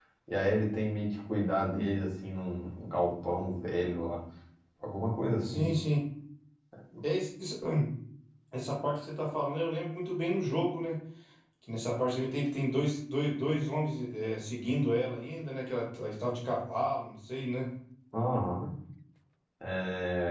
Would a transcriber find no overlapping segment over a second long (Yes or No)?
Yes